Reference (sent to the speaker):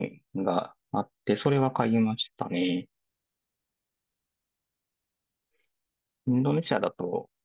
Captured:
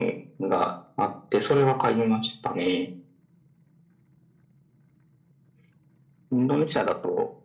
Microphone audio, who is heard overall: echo only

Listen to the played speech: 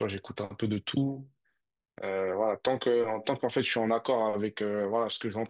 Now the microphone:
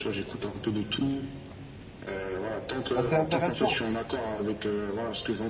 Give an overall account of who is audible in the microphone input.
both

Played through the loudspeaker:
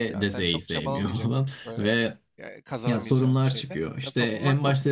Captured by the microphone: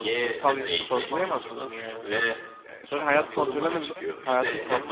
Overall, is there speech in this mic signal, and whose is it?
both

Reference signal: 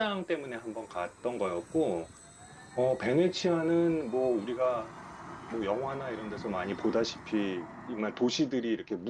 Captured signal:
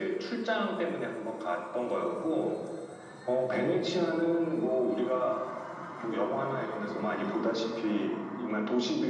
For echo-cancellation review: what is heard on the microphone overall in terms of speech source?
echo only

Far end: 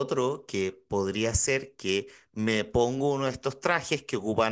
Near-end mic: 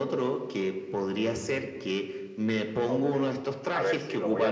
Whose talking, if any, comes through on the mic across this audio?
both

